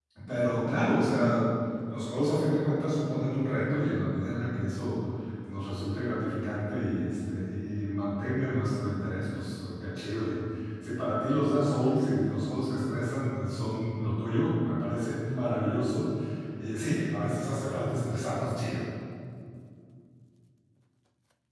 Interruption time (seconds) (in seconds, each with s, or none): none